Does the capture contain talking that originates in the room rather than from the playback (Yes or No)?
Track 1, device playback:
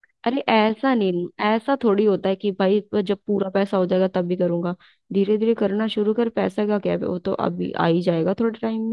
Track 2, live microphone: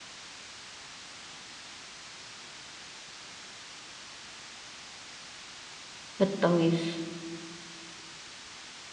Yes